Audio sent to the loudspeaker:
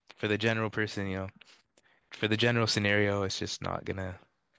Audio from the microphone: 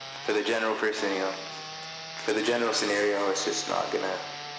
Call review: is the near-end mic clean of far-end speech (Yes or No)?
No